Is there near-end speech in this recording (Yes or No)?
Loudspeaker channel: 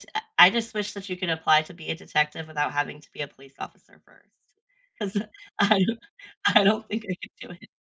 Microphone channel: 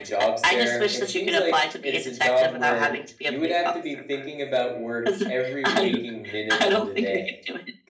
Yes